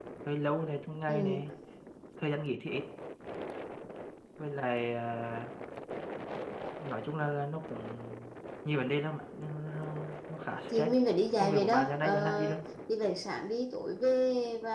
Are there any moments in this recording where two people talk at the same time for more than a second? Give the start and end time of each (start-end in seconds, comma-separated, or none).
11.4-12.6